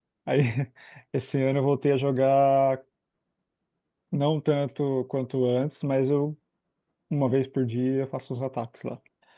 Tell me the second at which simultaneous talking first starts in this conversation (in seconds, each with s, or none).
none